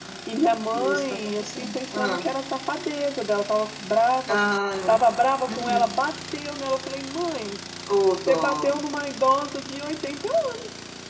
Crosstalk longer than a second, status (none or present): present